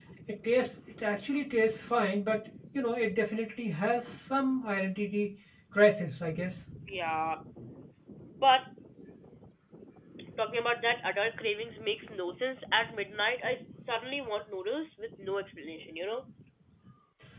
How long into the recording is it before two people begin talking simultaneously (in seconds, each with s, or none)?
none